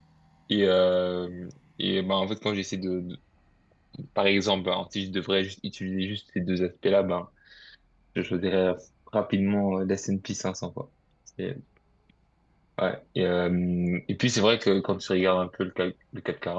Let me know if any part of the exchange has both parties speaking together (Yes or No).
No